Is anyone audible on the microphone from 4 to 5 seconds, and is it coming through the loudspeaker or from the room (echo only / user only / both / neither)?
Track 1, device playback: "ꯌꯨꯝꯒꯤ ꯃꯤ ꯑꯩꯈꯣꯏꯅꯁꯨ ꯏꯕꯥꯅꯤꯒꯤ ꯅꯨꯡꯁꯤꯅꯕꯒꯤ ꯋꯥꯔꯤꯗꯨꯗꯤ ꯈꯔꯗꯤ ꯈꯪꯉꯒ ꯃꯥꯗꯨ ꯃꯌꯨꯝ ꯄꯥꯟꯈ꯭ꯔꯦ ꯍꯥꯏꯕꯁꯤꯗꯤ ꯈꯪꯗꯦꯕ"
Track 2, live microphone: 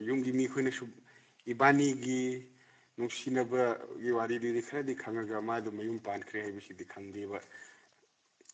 echo only